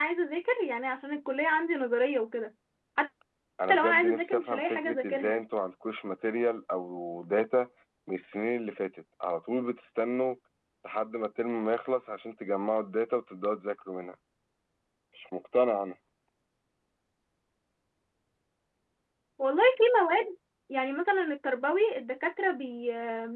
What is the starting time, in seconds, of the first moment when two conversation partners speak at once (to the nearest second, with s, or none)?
4 s